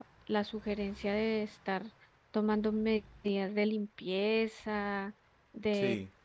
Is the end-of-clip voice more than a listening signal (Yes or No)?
No